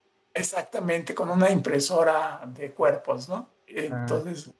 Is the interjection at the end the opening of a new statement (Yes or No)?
Yes